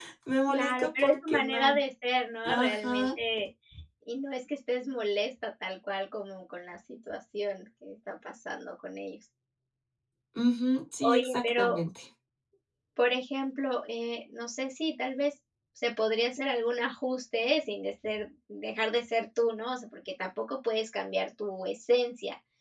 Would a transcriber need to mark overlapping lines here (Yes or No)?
Yes